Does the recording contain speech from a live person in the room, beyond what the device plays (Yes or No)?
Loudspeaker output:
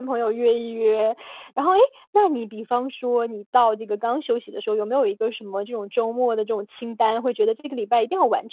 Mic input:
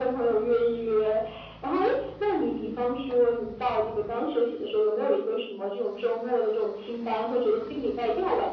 No